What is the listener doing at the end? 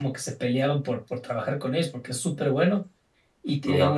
listening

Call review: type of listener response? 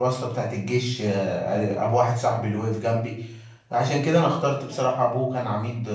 listening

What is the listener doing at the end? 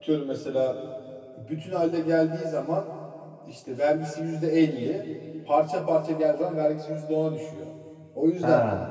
listening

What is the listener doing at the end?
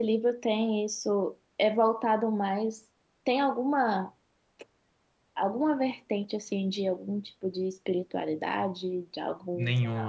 taking over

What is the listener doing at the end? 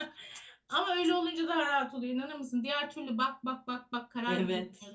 taking over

